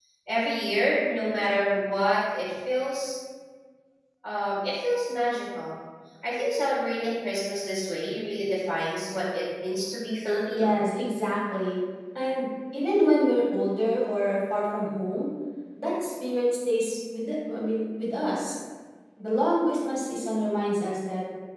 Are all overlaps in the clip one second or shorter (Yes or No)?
Yes